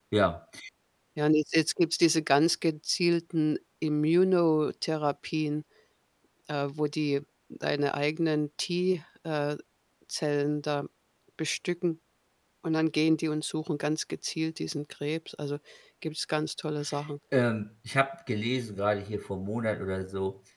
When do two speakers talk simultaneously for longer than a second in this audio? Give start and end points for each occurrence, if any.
none

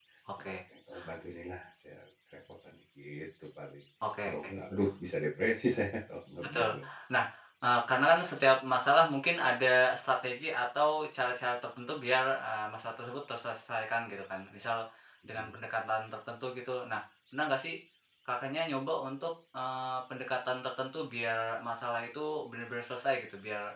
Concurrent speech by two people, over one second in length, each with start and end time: none

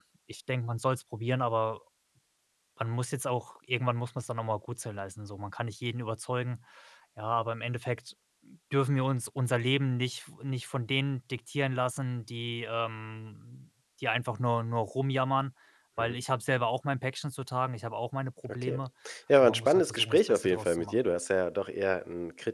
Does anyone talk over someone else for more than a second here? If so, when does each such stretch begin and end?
19.4-20.9

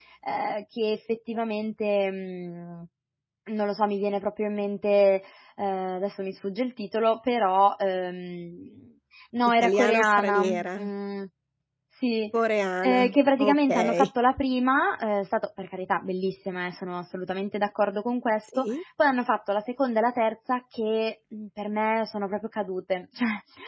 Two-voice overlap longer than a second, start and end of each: 9.6-10.9, 12.8-14.1

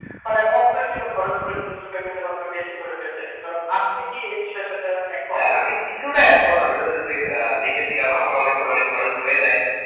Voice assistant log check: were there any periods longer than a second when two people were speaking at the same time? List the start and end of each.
none

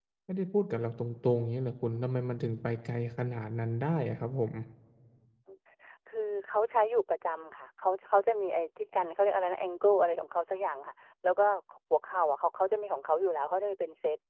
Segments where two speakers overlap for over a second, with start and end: none

